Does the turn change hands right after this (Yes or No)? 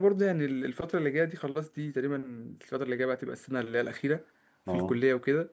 No